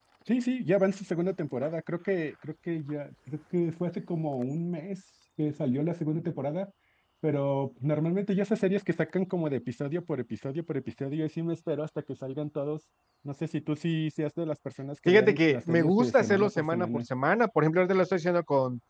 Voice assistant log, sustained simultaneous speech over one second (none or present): present